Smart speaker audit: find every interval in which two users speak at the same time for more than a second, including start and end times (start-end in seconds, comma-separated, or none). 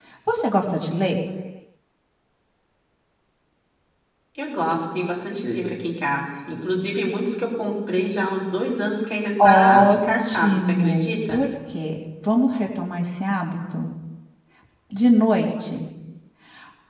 9.4-11.4